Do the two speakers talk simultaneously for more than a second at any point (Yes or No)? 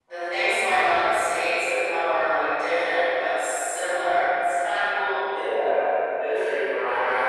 No